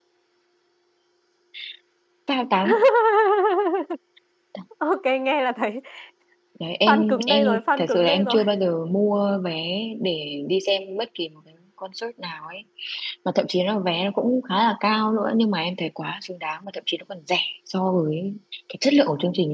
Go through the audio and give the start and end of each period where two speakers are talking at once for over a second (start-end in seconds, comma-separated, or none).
6.9-8.4